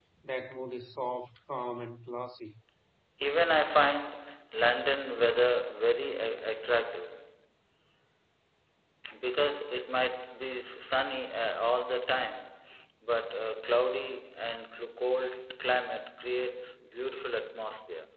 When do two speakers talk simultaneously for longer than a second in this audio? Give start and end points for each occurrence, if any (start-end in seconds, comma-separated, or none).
none